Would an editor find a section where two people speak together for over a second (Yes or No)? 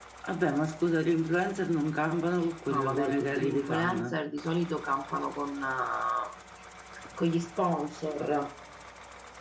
Yes